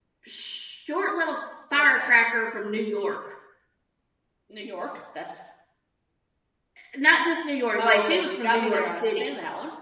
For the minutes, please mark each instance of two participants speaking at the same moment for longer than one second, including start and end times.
7.8-9.3

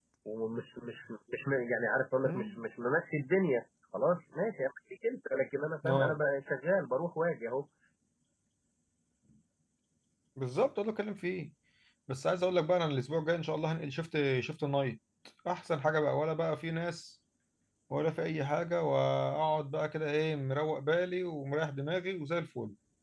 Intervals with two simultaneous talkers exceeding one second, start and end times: none

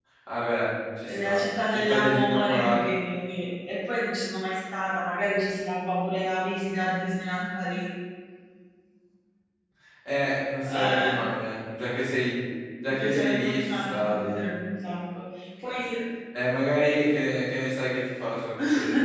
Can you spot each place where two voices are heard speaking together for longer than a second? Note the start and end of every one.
1.0-2.8, 12.8-14.4

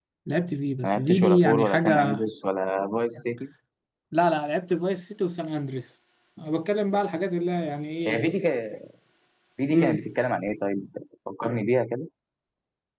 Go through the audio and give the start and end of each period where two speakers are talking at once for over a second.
0.8-2.1

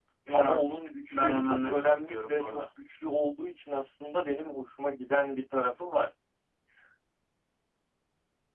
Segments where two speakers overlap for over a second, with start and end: 1.1-2.6

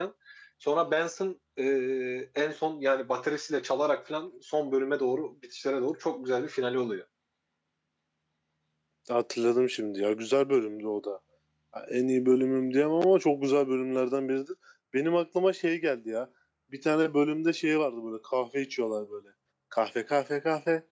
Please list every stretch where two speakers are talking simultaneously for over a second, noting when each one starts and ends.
none

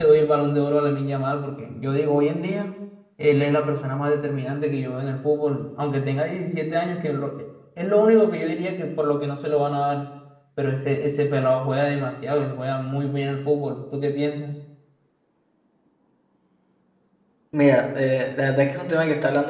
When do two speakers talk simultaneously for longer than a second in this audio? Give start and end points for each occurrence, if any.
none

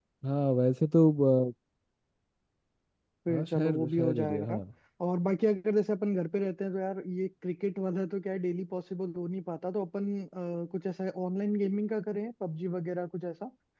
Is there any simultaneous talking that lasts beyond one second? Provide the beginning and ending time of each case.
3.3-4.6

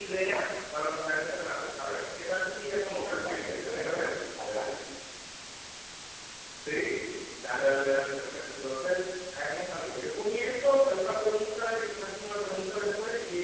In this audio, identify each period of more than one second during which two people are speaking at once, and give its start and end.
2.8-4.0

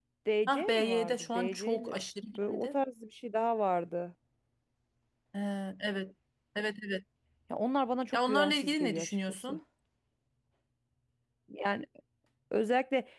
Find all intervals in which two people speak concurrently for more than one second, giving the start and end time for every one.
0.5-2.0, 8.1-9.6

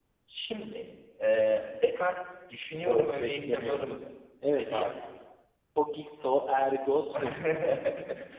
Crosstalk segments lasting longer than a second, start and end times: 2.7-4.0

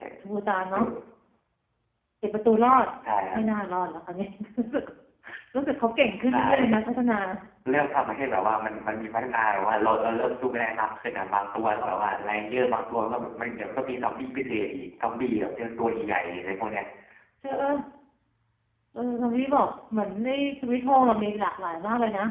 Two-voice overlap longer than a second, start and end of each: none

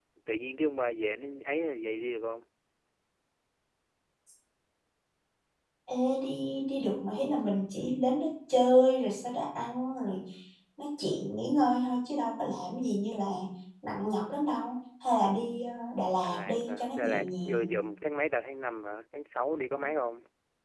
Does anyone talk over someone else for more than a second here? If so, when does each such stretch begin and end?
16.2-17.7

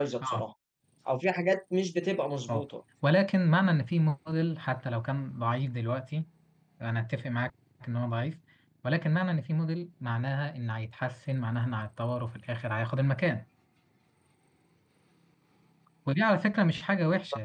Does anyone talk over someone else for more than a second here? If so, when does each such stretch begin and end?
none

